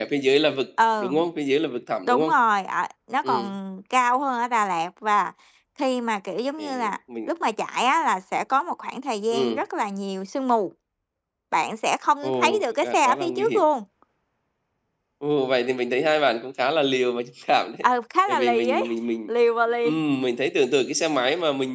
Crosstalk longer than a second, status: present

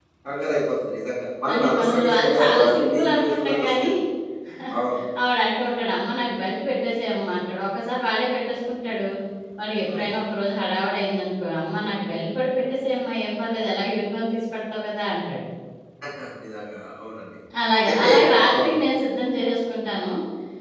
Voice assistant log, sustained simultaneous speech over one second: present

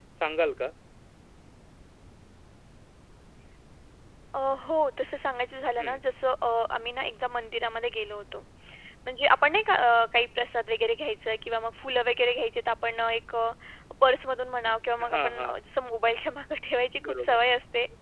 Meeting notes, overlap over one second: none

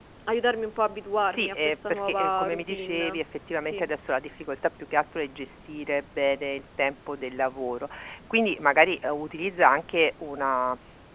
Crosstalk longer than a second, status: present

